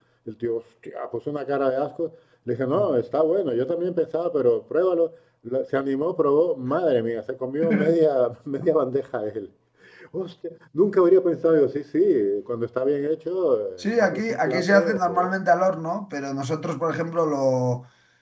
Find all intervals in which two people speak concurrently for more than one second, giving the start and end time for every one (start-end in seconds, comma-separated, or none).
13.8-15.3